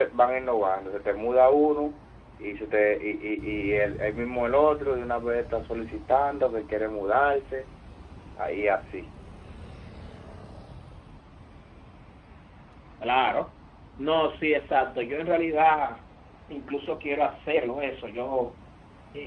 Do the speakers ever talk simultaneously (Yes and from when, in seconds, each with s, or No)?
No